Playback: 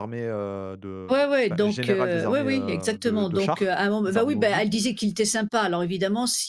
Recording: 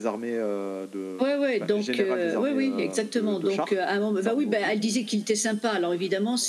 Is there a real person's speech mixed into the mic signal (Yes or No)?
No